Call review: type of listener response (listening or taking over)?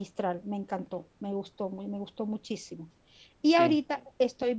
listening